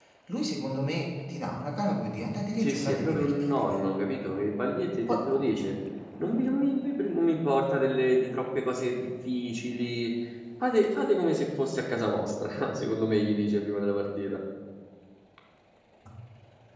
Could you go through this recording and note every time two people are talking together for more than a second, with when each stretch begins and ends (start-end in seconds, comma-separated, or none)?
2.6-3.8